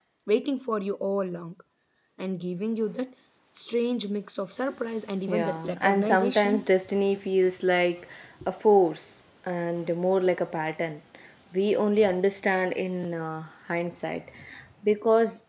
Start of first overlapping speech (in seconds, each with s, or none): 5.3 s